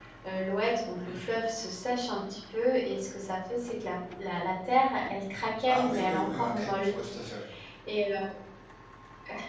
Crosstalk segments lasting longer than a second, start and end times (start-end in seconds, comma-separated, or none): 5.7-7.0